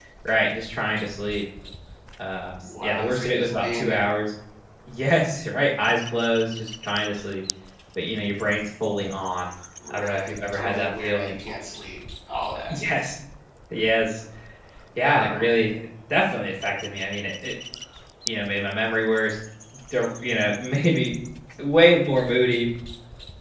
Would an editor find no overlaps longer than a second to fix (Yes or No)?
No